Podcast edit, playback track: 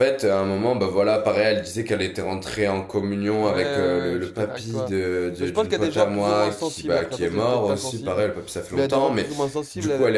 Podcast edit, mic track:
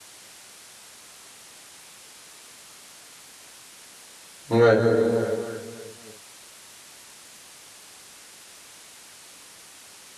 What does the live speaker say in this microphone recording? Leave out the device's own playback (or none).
ouais,